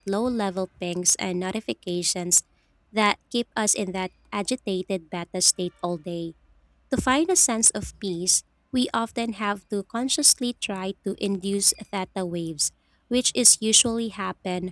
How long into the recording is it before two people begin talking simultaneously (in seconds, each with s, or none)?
none